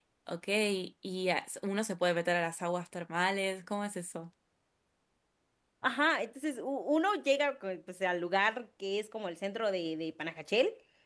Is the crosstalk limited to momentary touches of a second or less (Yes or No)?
Yes